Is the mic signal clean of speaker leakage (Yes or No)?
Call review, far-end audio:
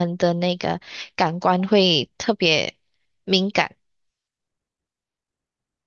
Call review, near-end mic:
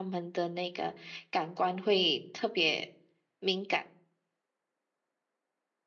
No